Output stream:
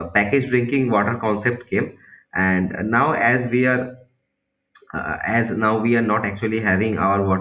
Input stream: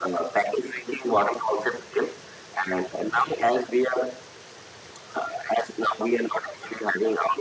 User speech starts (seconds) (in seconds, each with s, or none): none